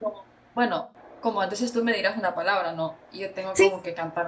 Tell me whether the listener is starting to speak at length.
No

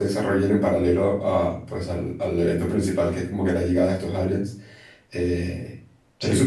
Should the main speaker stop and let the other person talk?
No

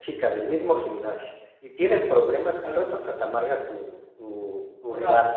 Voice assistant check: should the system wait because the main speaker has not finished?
No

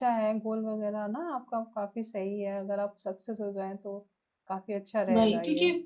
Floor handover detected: Yes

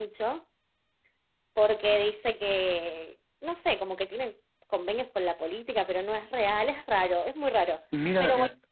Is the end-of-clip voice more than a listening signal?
Yes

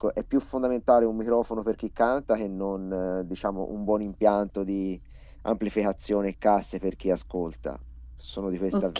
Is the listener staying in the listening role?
No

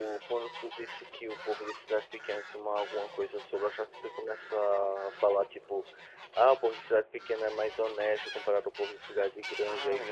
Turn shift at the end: Yes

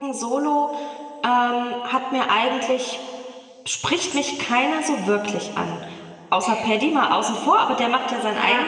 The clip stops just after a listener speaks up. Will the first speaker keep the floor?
No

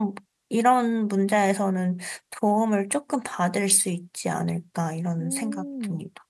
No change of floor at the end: No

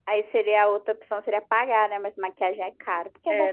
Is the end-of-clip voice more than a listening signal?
Yes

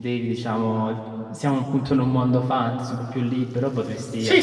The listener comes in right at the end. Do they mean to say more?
No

